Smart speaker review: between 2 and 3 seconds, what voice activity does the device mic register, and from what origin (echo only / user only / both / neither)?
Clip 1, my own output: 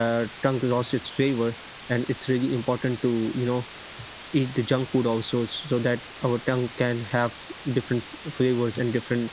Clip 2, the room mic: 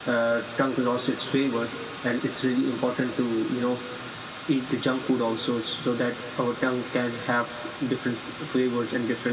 echo only